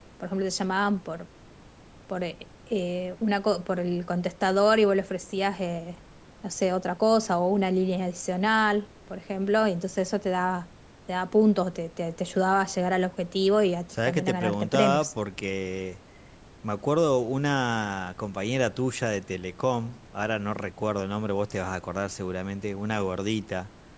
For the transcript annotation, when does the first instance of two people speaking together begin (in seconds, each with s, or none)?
13.9 s